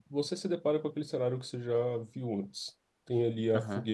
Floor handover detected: No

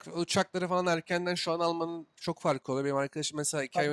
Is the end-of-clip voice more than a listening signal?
No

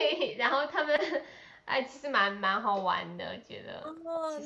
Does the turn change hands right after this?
Yes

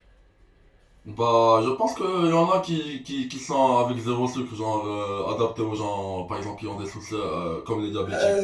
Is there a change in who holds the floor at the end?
Yes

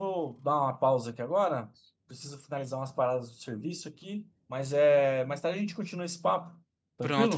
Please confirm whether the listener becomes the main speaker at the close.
Yes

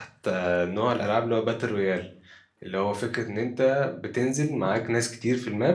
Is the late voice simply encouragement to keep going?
Yes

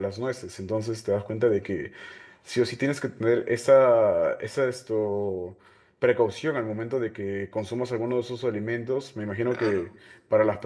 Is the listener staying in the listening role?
Yes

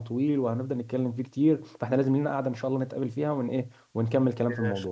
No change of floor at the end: No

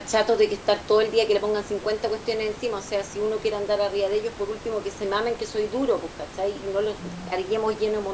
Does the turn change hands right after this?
No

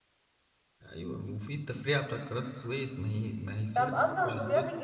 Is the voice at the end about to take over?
Yes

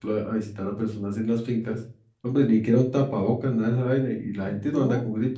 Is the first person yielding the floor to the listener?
No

